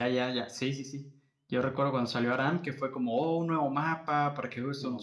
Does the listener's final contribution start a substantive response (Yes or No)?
No